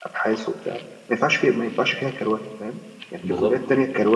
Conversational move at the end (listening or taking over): listening